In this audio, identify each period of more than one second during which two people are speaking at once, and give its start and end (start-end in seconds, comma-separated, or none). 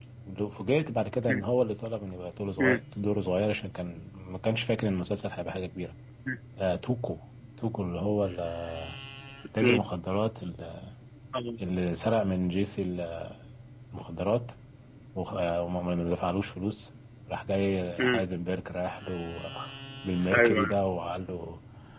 none